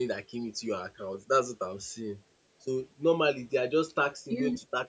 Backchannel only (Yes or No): Yes